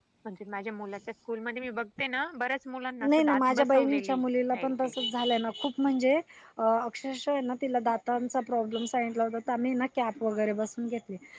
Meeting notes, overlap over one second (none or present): present